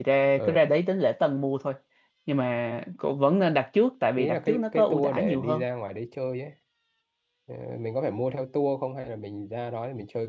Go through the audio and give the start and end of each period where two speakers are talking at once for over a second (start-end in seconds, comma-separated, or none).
4.2-5.6